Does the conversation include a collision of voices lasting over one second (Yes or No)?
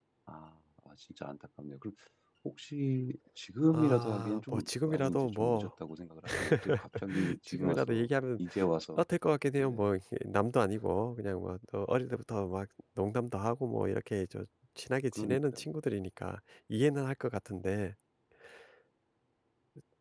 Yes